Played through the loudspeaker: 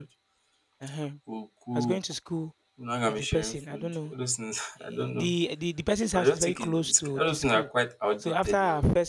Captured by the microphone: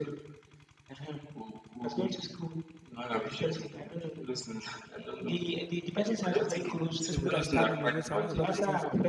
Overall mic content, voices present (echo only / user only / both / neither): both